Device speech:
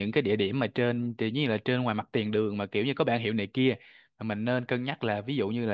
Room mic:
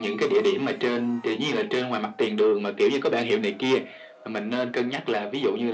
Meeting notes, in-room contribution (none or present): none